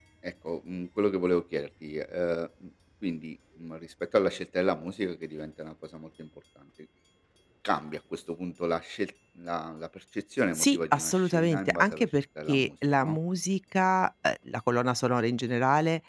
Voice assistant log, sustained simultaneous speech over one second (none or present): present